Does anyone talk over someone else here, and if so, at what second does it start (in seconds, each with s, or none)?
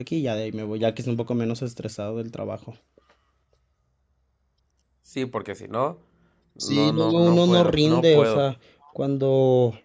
6.6 s